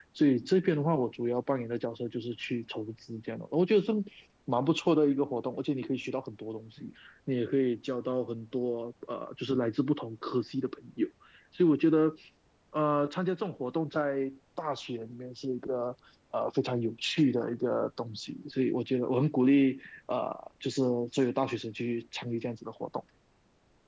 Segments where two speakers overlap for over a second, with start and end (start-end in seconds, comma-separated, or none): none